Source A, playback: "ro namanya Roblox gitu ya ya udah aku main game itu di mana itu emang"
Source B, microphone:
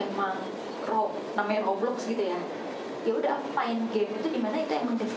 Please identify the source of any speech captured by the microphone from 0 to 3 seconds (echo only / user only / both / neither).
echo only